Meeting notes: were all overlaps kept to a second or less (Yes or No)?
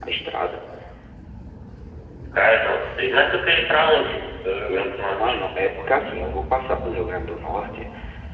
Yes